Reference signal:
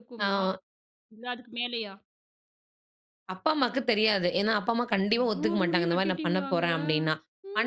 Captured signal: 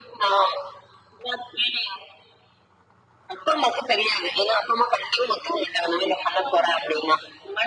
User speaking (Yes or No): No